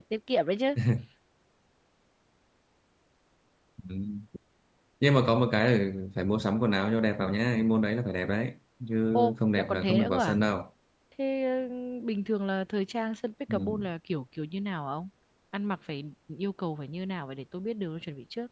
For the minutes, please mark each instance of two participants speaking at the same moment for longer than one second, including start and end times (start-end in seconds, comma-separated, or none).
9.1-10.4